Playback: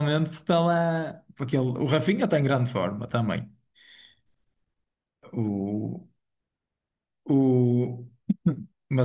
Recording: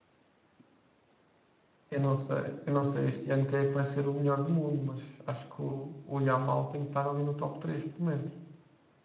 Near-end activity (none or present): present